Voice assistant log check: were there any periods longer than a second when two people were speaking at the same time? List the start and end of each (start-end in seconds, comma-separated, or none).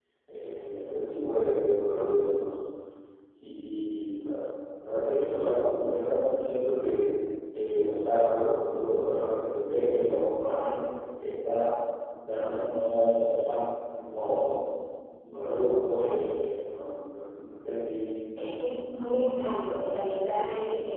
none